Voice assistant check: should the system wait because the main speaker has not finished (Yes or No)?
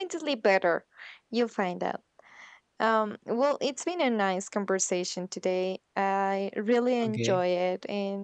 Yes